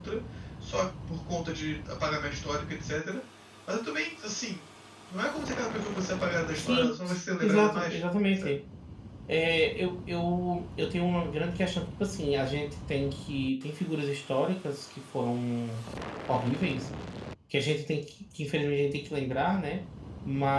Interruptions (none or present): present